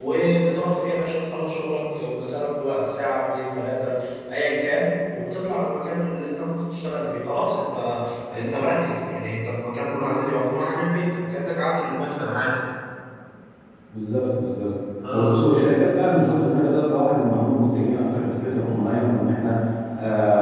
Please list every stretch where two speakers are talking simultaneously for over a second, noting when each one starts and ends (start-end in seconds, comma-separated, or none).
none